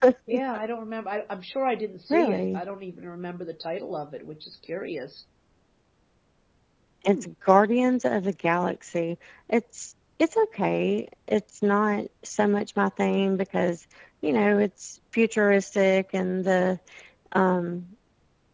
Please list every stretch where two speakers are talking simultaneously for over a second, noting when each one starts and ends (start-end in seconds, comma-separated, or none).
none